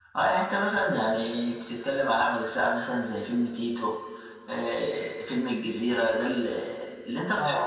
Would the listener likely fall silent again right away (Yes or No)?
No